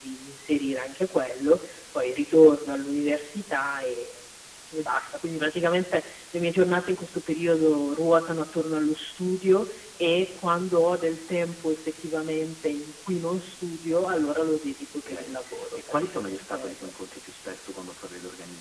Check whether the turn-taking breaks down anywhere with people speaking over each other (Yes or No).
Yes